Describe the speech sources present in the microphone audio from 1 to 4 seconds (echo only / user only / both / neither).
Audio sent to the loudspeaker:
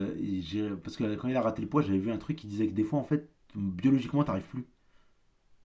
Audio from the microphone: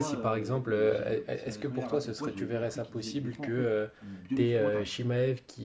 both